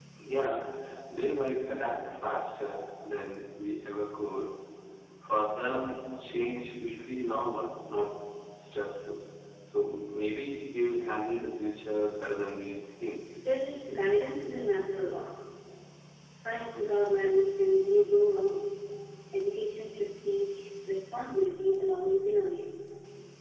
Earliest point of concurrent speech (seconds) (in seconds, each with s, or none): none